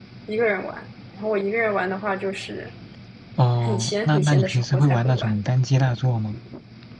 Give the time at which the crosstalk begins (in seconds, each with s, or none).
3.6 s